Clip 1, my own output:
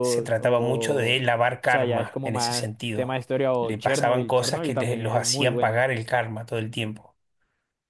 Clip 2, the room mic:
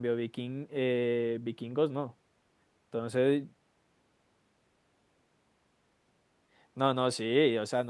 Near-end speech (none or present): present